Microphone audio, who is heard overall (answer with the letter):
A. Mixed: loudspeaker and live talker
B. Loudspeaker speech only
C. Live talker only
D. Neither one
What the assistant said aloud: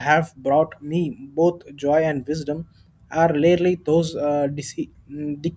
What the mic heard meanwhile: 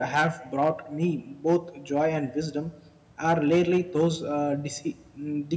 B